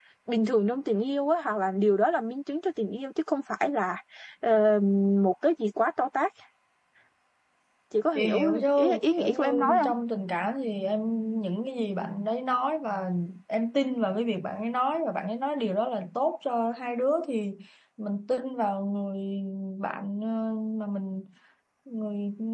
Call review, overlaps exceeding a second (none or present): present